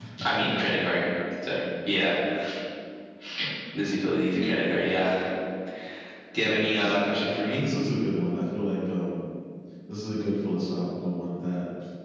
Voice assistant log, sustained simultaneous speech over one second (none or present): present